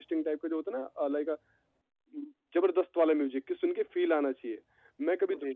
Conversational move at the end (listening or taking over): listening